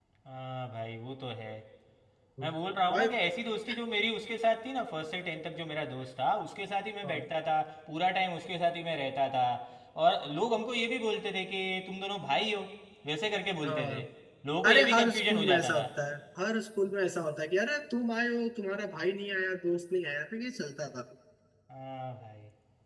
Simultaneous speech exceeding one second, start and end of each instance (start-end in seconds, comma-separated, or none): 14.7-15.9